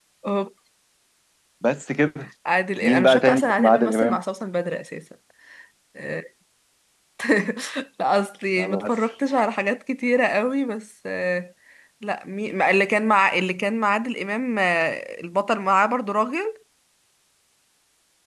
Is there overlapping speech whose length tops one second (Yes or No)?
Yes